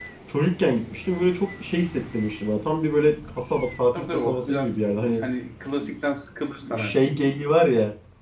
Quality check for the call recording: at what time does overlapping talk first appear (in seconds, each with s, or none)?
3.9 s